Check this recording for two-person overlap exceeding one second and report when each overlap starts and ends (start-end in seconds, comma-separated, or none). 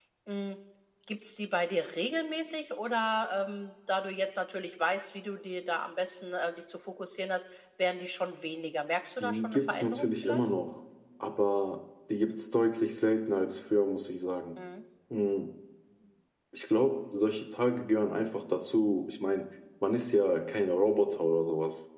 9.2-10.4